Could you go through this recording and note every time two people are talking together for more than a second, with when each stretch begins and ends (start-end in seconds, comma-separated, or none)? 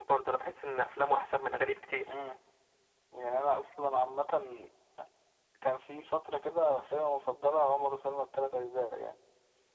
none